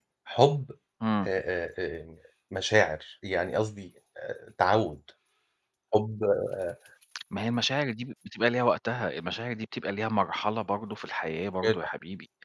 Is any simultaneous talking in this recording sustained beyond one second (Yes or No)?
No